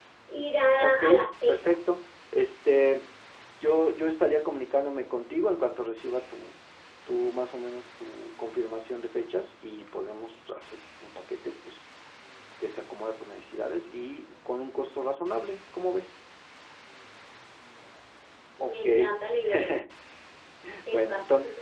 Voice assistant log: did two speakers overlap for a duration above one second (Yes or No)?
No